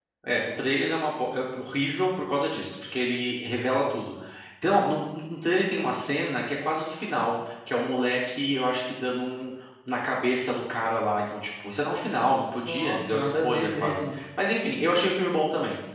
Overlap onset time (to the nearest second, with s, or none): 13 s